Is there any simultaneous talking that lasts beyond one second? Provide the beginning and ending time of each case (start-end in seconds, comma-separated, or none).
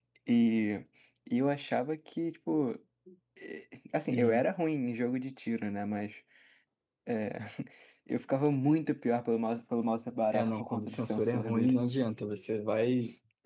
10.3-11.7